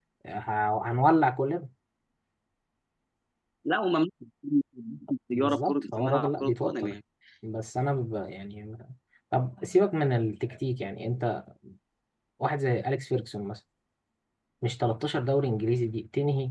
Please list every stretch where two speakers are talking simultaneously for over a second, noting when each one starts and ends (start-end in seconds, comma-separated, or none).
5.3-6.9